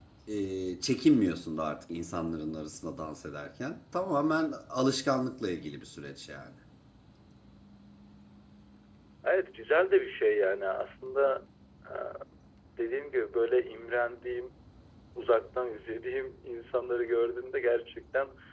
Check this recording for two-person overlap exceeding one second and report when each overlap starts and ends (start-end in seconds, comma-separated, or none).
none